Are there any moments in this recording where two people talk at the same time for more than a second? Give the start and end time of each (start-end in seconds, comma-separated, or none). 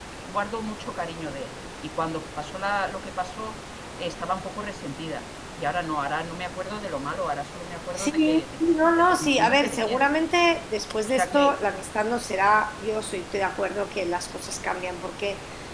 8.8-10.1